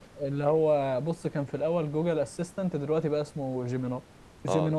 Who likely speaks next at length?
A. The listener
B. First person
A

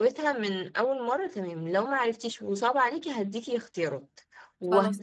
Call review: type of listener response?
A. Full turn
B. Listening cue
B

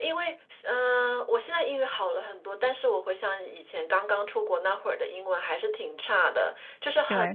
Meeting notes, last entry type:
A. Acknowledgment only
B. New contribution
A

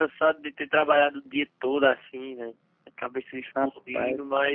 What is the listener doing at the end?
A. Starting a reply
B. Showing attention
B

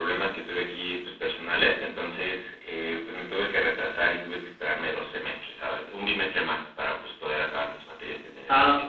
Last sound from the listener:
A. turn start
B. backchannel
A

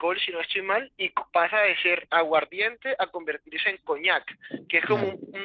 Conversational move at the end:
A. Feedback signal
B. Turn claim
A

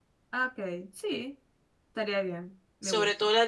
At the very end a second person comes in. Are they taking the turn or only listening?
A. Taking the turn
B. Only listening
A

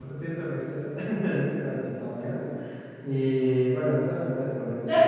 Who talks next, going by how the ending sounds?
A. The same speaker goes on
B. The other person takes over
B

